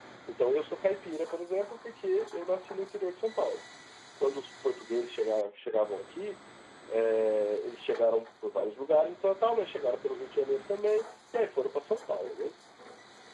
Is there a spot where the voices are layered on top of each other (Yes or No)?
No